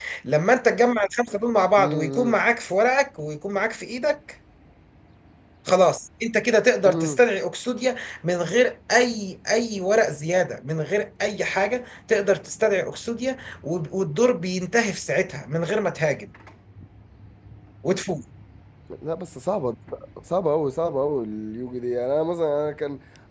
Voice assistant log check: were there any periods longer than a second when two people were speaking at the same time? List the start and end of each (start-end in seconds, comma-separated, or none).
none